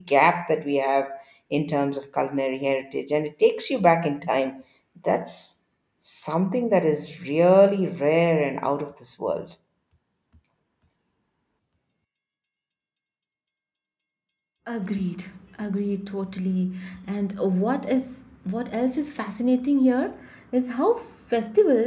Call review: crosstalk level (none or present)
none